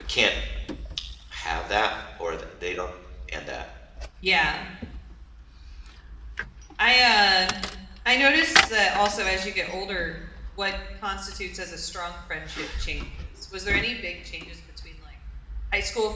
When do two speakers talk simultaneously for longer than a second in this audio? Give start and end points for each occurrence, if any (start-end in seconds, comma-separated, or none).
none